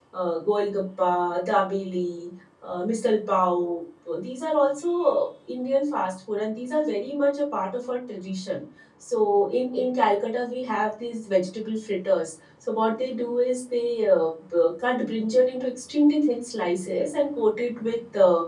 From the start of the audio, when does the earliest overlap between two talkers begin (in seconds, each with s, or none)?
none